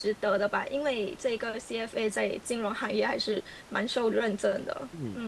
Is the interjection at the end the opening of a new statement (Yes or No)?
Yes